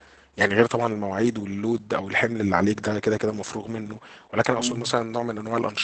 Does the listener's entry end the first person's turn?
No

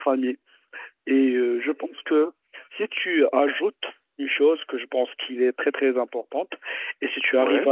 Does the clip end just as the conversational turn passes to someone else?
No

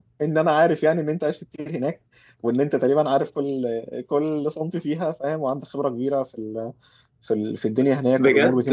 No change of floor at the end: No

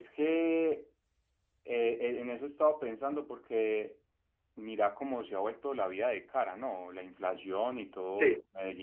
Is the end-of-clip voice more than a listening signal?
No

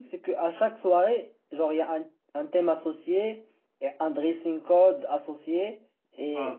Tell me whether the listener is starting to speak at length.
No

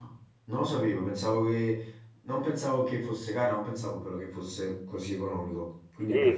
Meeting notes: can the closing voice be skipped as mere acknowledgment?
No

